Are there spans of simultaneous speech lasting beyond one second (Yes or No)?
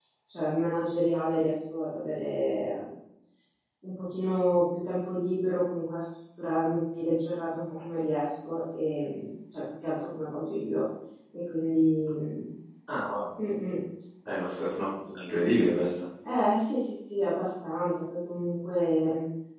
No